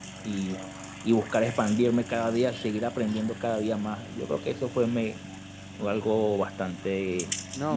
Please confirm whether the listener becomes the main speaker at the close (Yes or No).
Yes